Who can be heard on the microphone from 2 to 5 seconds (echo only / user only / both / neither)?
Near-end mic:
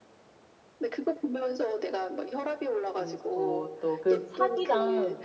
both